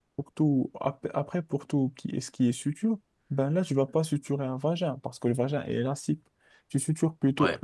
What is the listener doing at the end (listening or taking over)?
listening